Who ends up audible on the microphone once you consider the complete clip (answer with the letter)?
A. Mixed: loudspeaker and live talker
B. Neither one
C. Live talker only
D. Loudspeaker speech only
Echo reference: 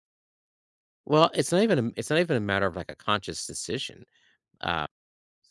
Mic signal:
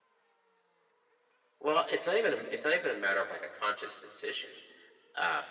D